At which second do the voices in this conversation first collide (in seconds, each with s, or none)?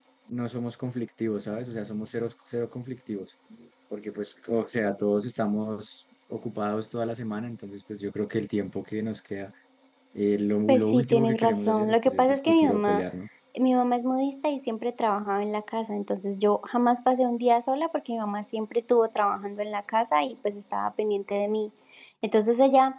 10.7 s